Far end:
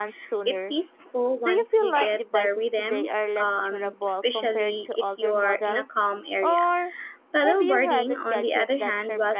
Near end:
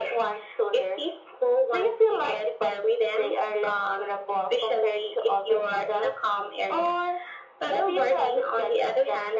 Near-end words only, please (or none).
none